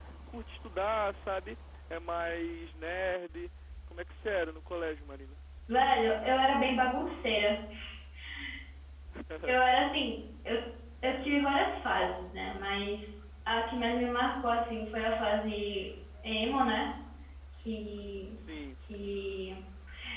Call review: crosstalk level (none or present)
none